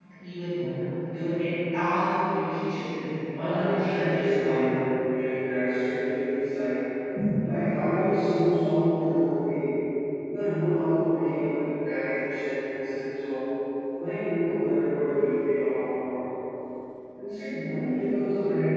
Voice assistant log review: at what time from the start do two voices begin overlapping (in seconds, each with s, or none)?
3.3 s